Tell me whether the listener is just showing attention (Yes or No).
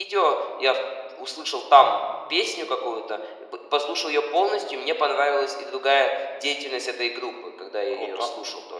No